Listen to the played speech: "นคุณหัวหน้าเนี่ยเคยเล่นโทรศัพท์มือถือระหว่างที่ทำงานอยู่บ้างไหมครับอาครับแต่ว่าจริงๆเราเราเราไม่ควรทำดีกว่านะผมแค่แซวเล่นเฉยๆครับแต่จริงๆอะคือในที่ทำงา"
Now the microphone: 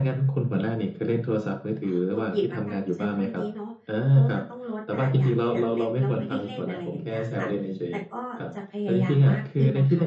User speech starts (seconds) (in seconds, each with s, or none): 1.8 s